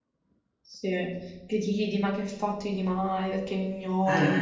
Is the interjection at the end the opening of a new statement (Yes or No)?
Yes